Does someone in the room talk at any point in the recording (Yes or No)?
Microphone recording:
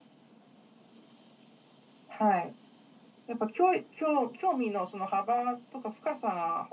Yes